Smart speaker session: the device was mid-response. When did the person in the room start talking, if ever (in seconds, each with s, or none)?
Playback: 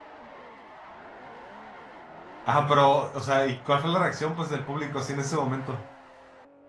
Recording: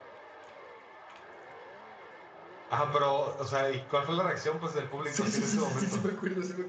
5.0 s